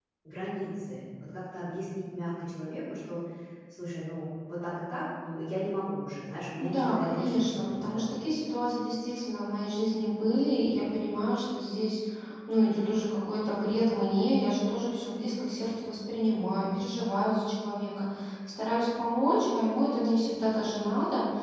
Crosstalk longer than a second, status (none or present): present